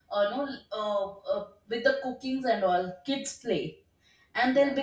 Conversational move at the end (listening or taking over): listening